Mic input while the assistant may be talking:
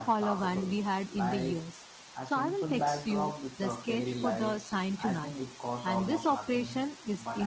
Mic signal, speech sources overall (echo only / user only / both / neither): echo only